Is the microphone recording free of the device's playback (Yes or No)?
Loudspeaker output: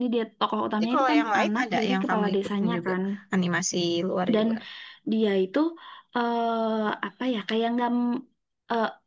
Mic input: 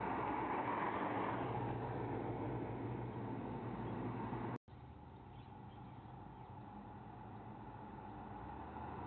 Yes